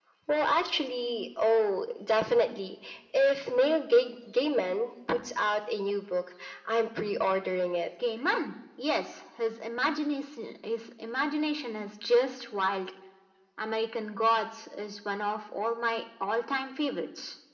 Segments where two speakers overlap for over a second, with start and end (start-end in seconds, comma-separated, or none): none